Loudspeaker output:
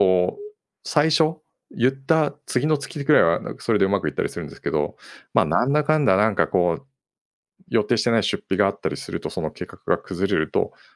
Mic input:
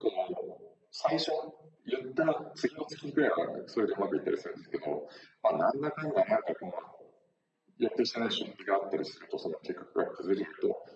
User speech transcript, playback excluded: none

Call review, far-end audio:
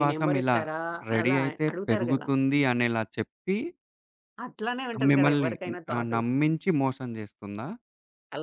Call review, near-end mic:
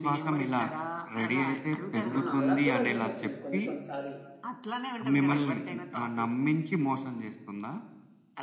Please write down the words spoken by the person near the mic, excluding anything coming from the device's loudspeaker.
ఆ! అలా కూడా యూజ్ అవుతుంది కొన్ని కొన్ని సార్లు.

